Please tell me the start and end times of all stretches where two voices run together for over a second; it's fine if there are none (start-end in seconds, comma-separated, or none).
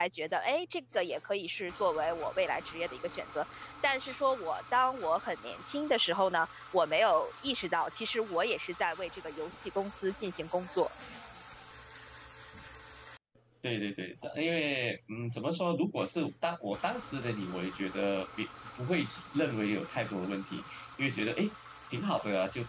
none